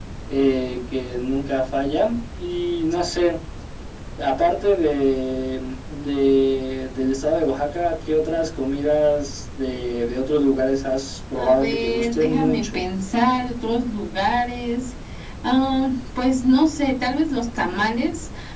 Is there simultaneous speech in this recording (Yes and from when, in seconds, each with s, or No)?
Yes, from 11.4 s